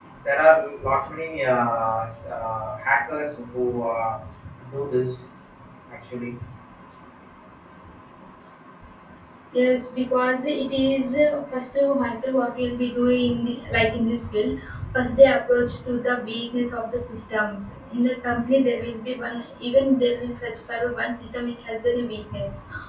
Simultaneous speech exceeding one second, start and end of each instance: none

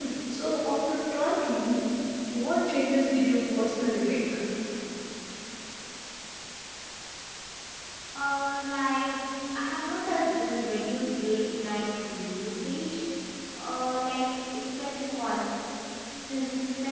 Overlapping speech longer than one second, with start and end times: none

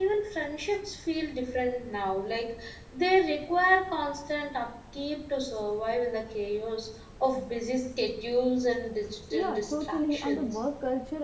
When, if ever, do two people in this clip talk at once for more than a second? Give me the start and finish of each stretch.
9.3-10.6

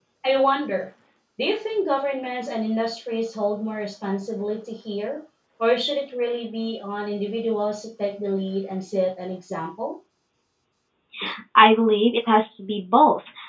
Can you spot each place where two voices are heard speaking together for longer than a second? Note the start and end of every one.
none

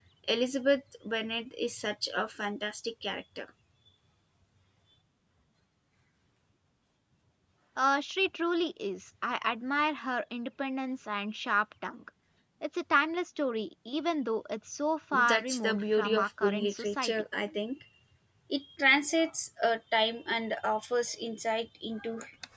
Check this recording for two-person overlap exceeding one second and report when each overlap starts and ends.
15.3-17.2

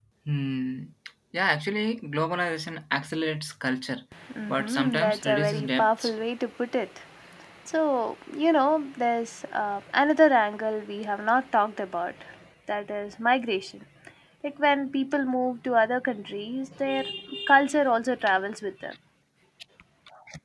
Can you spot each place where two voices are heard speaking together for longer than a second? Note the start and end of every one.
4.5-6.1

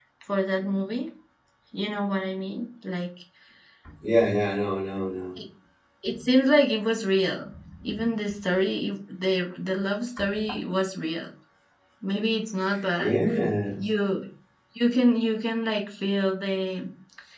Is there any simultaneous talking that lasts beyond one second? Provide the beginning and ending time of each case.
none

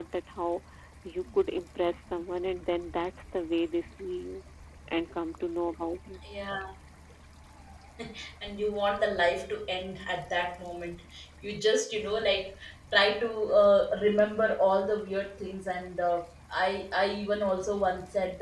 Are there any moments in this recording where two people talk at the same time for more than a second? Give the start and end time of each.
none

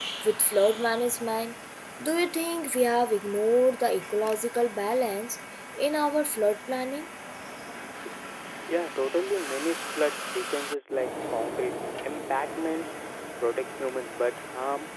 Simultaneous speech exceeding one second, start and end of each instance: none

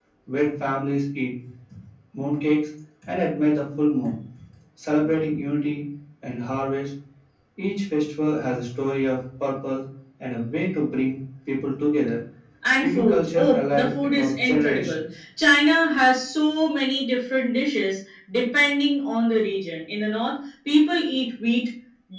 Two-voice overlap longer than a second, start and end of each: 12.8-15.0

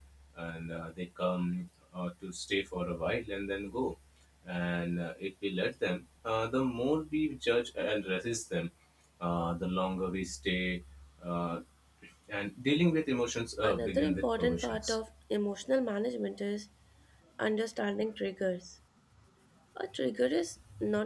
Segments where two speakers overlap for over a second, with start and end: 13.6-15.0

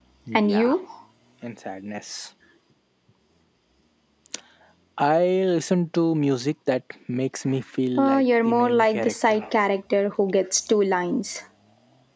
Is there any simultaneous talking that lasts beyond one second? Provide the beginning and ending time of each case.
8.0-9.4

